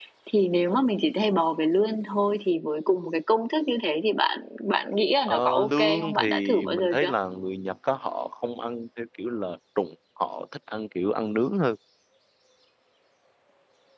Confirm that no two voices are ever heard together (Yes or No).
No